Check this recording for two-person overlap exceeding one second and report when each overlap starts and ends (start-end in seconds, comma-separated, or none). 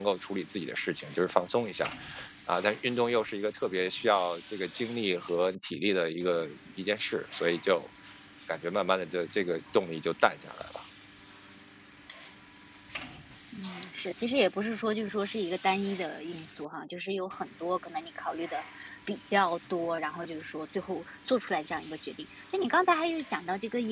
none